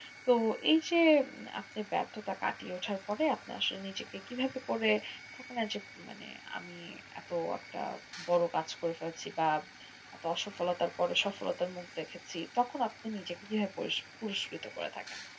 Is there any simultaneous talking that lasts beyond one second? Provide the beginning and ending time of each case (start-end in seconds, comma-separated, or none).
none